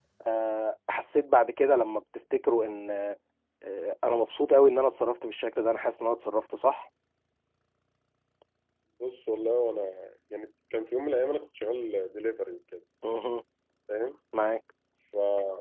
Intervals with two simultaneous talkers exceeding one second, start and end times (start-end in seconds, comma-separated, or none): none